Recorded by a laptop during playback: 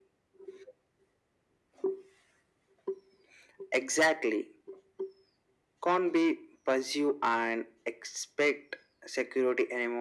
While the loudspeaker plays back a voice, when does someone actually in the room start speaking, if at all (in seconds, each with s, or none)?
none